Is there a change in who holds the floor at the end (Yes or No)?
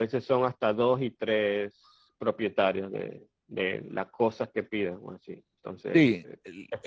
Yes